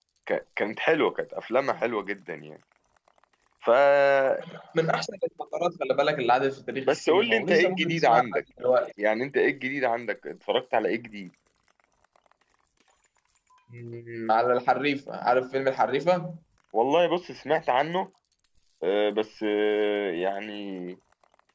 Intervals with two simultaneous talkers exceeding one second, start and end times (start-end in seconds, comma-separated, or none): 6.9-8.4